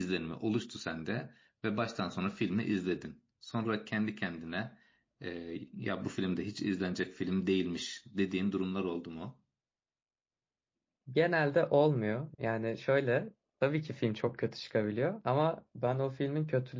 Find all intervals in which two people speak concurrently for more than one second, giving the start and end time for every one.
none

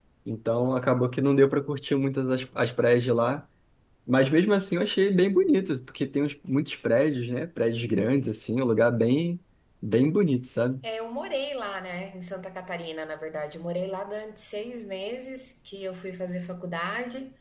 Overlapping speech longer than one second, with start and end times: none

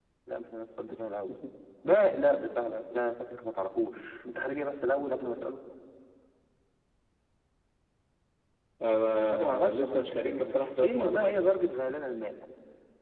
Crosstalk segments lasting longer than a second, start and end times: 9.3-11.6

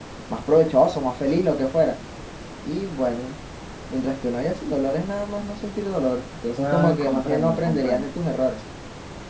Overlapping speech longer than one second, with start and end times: 6.6-8.1

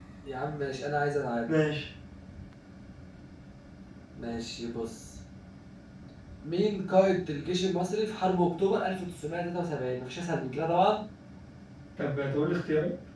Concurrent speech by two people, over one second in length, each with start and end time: none

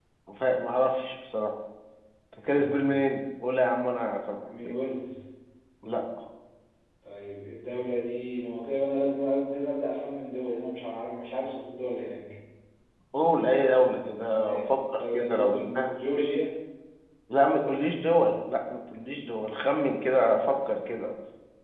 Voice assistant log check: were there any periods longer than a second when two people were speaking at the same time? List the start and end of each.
14.3-16.0

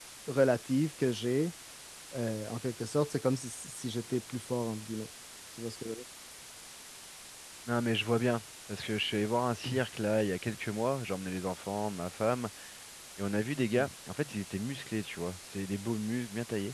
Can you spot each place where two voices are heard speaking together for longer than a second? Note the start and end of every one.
none

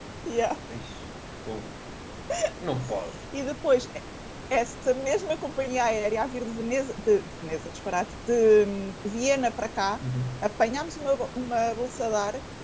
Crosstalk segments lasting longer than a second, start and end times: none

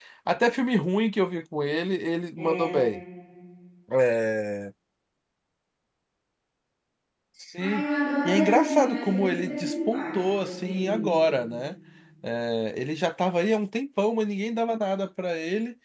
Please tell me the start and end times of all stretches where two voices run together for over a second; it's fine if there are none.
8.2-11.2

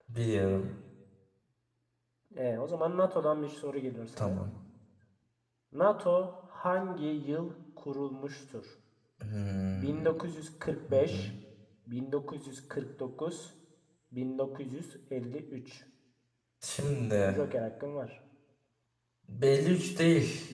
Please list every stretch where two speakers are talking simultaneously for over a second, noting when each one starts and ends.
none

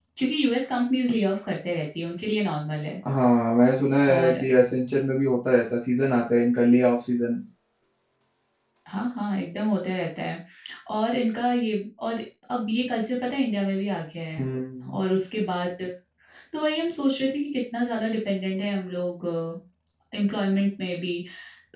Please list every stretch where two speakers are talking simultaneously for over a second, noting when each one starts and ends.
none

